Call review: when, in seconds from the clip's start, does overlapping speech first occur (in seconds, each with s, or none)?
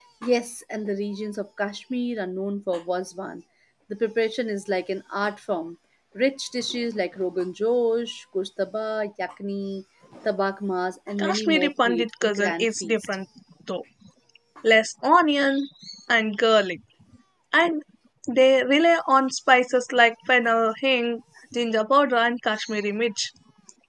11.2 s